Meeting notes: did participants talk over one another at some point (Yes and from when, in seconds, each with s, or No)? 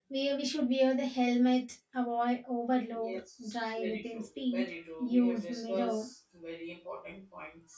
Yes, from 2.9 s